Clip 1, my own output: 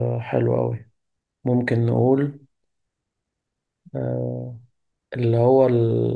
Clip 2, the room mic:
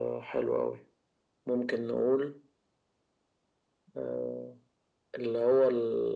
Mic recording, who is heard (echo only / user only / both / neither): echo only